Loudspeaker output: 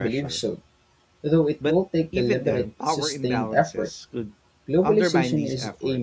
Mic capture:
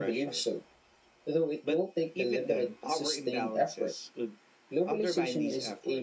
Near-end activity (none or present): none